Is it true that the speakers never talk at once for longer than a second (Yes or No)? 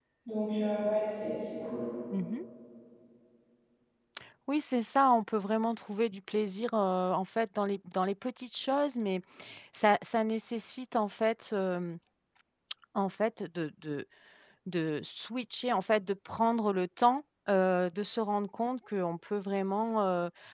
Yes